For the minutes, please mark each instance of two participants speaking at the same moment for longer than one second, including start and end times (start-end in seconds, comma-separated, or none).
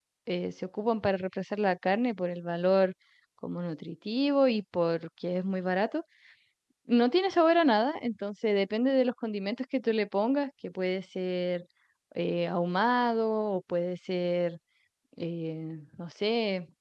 none